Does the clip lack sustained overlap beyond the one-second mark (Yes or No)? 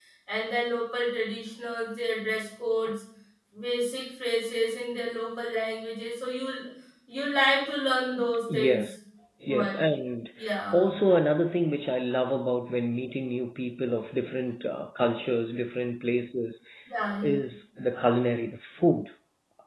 Yes